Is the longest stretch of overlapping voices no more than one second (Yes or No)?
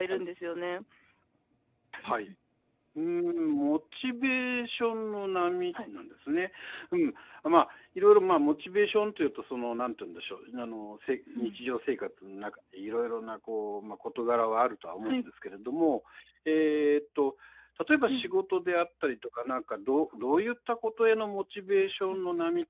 Yes